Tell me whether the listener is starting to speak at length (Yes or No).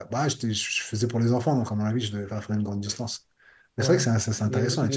Yes